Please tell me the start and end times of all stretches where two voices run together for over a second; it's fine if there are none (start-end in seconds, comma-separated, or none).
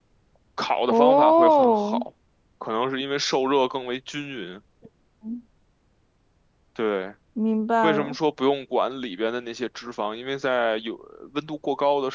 0.8-2.0